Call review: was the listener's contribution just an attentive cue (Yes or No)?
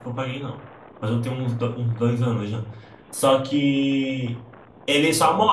Yes